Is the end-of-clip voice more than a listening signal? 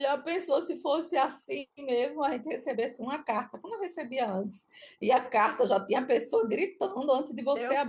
Yes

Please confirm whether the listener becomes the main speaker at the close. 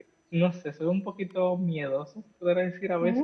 No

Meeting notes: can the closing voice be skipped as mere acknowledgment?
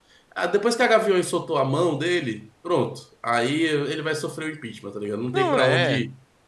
No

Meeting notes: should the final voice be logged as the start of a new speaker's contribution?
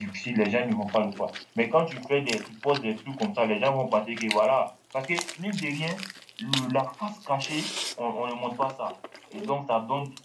No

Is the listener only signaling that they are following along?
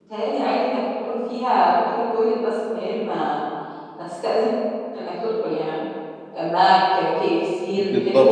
No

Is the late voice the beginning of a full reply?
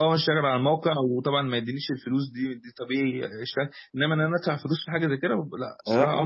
Yes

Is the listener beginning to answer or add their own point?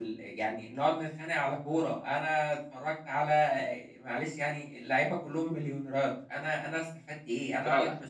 No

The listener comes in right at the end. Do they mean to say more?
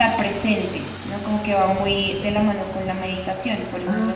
Yes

